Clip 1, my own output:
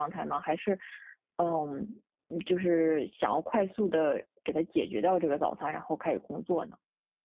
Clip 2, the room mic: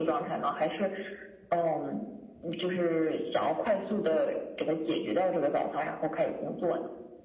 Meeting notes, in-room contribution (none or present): none